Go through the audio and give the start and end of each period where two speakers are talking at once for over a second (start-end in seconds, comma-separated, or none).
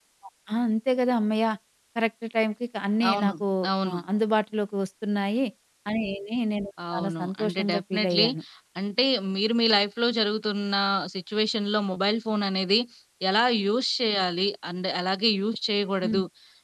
6.9-8.2